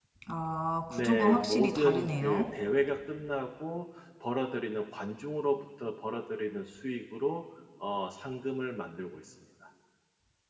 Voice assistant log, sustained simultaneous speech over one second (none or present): present